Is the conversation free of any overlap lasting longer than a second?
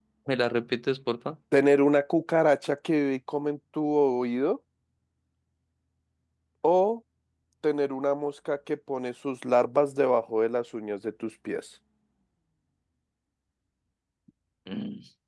Yes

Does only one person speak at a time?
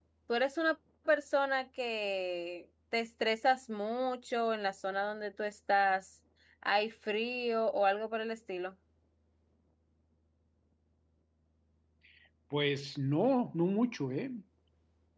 Yes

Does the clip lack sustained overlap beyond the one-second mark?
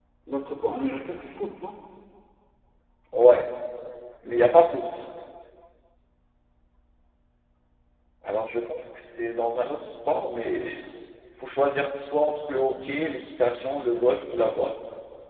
Yes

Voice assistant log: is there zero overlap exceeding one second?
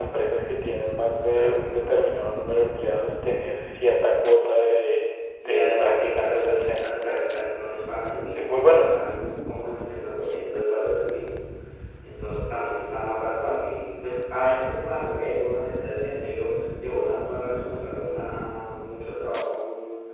No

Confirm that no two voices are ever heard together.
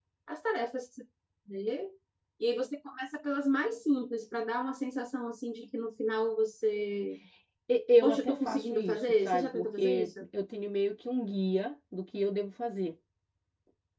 No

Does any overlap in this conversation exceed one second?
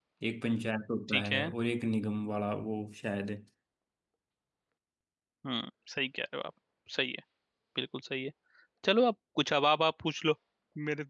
No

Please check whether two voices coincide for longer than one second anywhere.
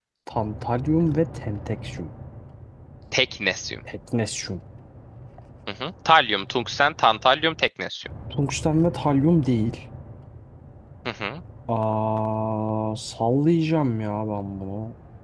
No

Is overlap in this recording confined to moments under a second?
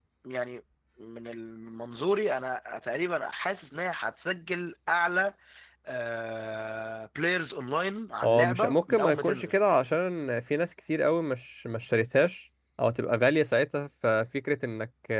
No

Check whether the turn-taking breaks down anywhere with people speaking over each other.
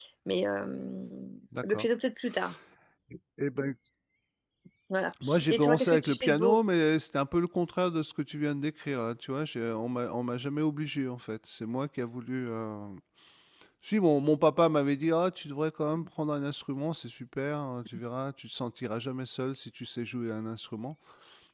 Yes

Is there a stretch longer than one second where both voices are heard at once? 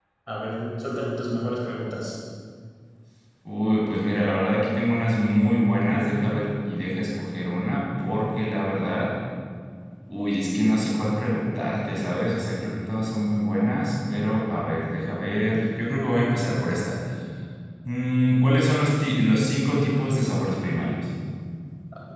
No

